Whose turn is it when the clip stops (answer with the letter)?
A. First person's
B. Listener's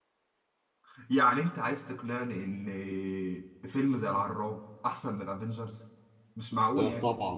B